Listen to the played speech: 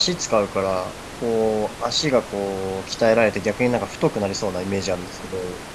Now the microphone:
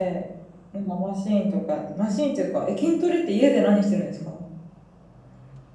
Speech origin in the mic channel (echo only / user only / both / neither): user only